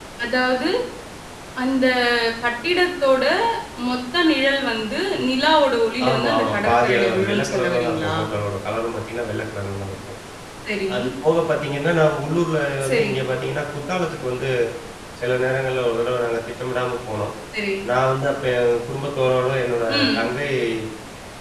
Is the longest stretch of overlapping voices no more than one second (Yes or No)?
No